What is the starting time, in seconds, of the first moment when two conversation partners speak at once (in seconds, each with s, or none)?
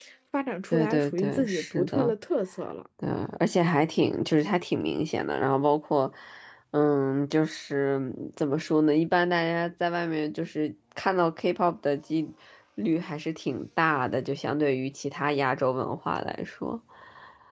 0.7 s